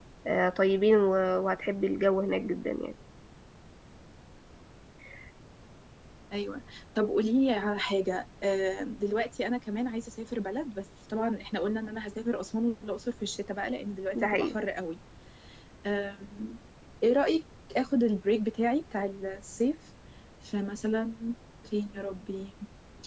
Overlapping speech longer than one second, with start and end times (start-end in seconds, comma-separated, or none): none